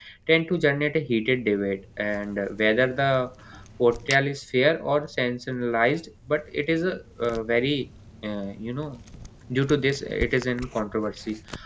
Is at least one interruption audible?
No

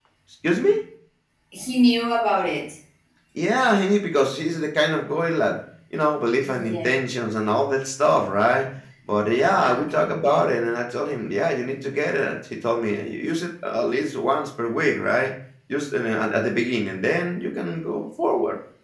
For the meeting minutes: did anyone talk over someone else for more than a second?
No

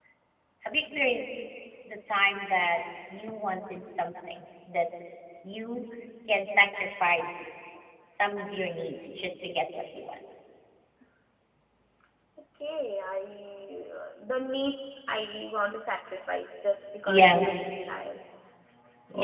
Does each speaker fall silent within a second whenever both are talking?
Yes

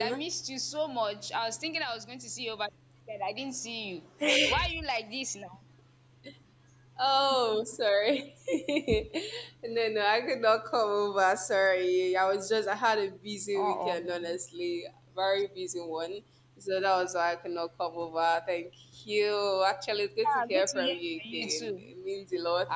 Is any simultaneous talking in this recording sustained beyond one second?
Yes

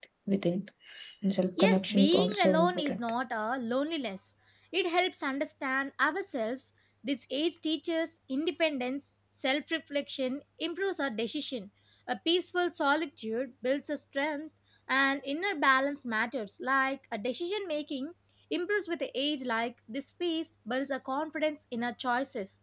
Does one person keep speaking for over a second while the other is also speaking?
Yes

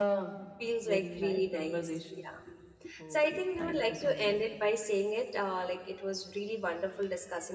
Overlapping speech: Yes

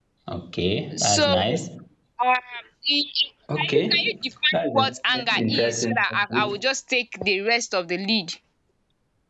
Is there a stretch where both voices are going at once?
Yes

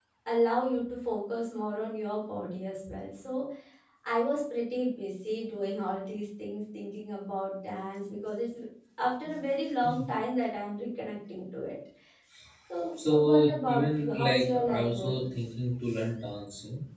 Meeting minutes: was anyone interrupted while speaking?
Yes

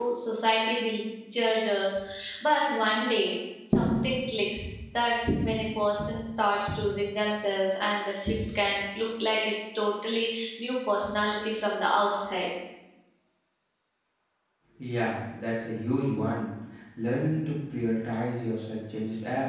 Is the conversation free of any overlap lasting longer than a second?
Yes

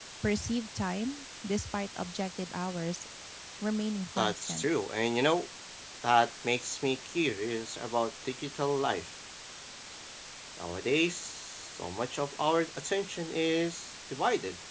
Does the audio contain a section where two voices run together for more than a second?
No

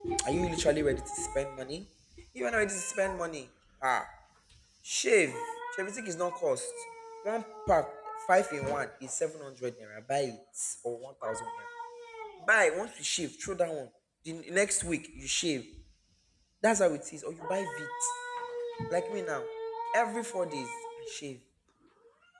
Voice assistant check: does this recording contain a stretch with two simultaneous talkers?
No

